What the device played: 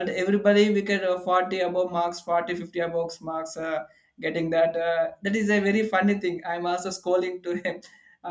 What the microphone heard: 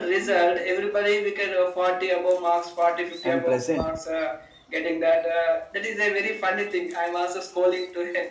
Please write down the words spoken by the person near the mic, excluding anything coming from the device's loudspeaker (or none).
and present